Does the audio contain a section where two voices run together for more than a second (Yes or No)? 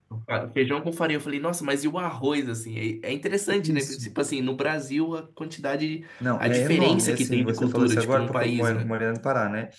Yes